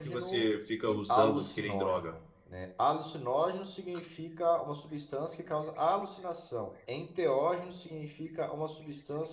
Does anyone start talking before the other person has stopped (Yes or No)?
Yes